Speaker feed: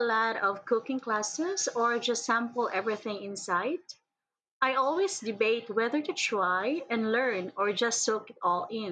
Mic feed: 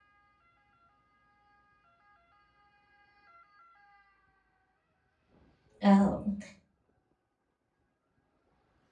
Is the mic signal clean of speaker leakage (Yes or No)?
Yes